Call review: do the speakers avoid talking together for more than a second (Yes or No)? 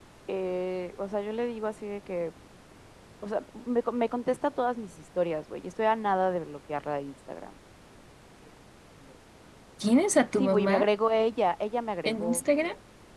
Yes